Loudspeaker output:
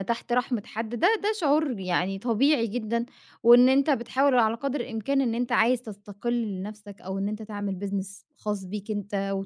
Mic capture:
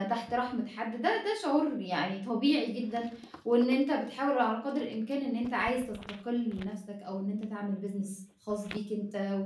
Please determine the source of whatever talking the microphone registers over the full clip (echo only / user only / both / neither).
echo only